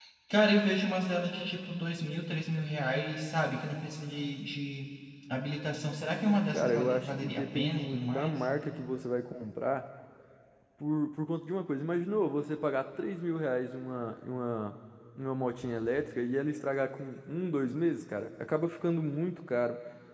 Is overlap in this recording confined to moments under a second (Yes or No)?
No